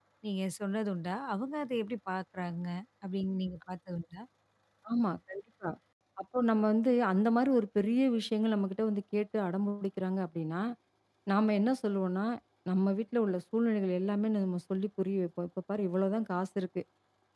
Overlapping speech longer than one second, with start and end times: none

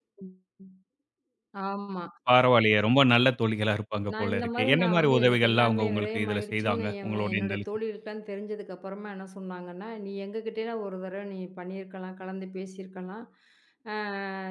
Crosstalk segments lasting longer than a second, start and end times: 4.2-7.5

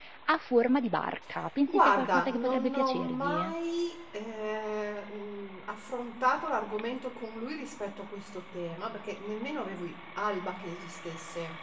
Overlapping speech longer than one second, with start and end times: 1.7-3.4

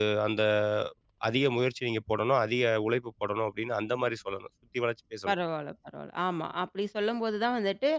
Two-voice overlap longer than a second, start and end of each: none

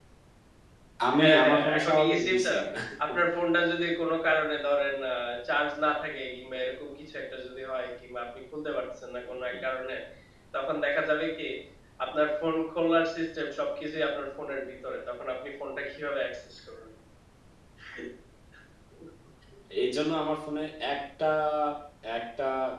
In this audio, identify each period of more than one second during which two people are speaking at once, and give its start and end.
1.2-2.5

